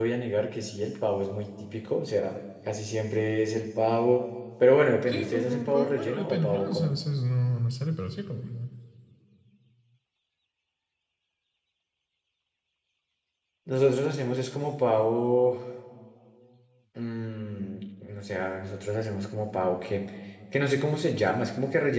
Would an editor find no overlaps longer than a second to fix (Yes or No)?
No